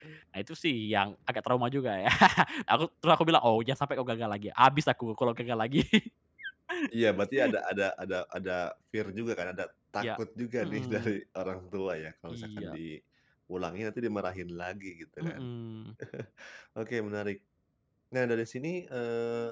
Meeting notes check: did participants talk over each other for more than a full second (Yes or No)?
No